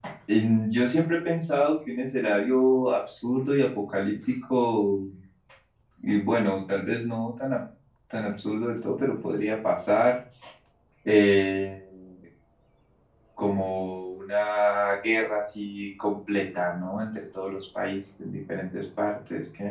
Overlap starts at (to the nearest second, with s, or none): none